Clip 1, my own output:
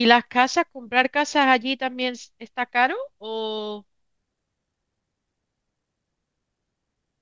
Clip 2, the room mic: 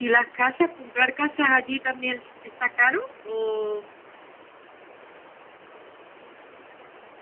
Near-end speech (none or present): none